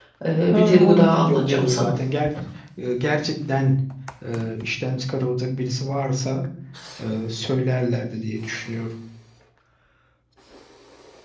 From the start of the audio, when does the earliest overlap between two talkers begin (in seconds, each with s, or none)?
0.5 s